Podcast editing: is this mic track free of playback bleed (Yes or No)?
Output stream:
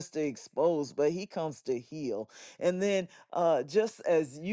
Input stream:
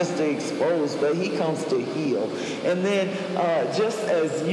No